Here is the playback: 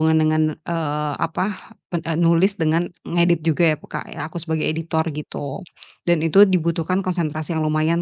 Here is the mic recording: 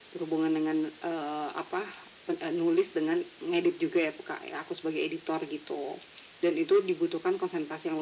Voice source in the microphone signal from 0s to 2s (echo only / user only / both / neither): echo only